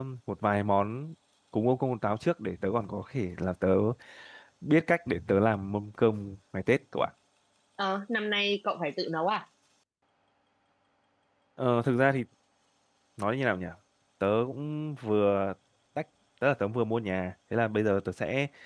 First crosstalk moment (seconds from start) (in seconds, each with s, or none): none